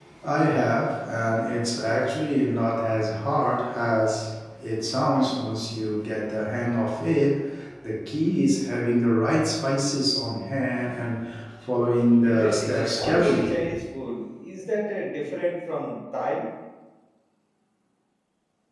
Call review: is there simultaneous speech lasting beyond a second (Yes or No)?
Yes